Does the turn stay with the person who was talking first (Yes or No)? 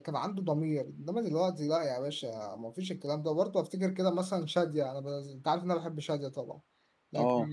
Yes